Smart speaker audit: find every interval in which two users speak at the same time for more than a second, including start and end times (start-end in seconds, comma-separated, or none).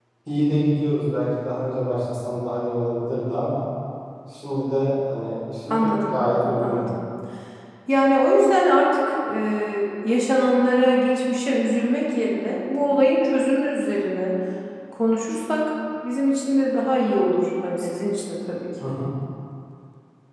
none